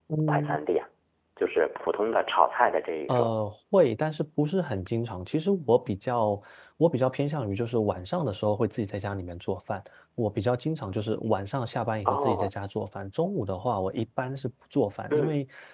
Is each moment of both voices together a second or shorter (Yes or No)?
Yes